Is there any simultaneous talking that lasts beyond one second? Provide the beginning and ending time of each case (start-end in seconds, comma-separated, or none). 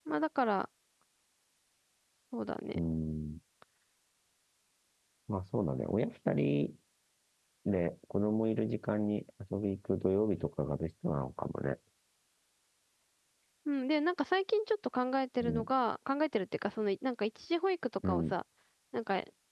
none